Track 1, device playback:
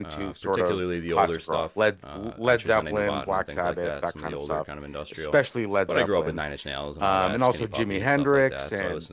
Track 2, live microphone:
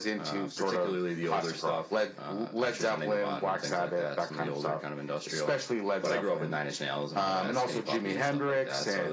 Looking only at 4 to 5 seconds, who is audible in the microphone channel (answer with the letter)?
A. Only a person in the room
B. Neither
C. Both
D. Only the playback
D